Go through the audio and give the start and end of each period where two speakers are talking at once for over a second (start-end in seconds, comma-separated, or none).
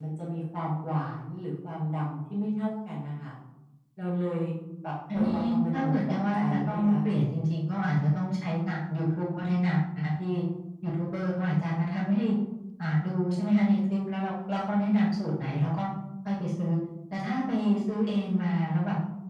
5.1-7.0